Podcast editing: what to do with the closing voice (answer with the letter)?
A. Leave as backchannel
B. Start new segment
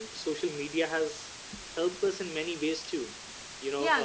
B